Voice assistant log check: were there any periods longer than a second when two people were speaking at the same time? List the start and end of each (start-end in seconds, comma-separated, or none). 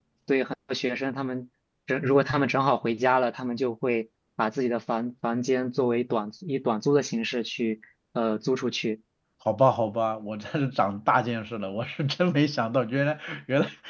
none